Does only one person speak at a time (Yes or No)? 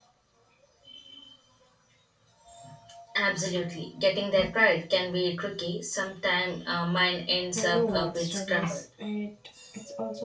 No